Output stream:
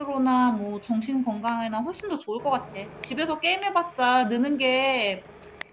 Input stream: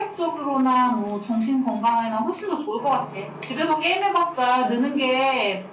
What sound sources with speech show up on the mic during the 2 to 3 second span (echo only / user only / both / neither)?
echo only